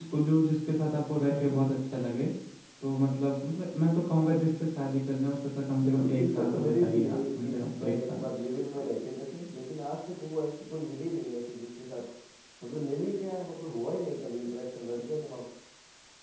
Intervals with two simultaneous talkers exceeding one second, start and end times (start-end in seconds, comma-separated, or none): 5.8-8.2